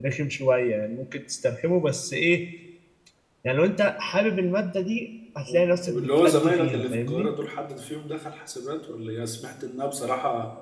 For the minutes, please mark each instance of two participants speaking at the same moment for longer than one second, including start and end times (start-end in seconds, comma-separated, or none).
5.9-7.3